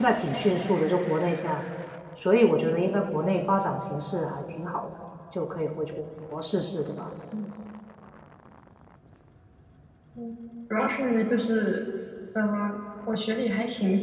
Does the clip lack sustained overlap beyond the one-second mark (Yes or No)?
Yes